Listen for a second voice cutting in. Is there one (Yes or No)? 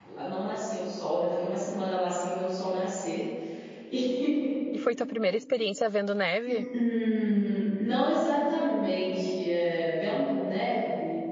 No